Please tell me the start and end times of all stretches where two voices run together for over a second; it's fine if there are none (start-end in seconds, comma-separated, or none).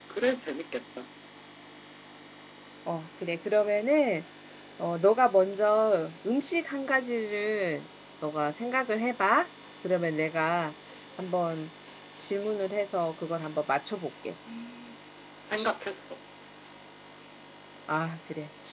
none